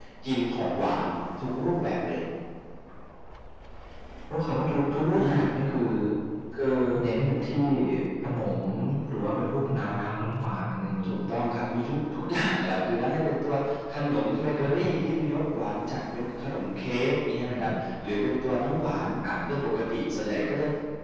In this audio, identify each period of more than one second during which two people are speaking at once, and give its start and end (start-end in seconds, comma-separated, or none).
none